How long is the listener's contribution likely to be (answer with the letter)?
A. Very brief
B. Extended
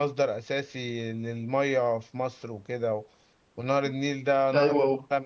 A